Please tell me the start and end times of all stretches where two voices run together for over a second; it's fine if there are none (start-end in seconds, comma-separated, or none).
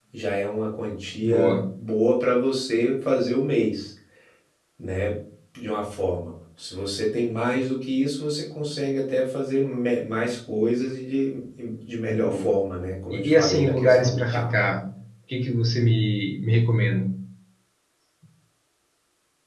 13.1-14.5